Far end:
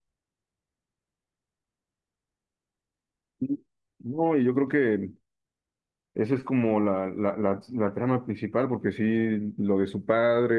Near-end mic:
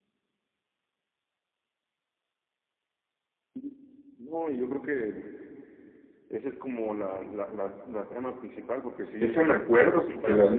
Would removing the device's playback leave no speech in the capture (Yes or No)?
No